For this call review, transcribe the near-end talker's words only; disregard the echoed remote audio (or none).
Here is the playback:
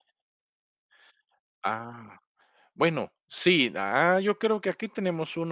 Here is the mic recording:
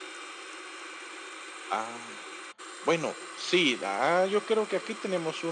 none